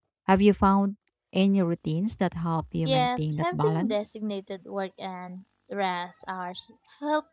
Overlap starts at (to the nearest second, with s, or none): 3 s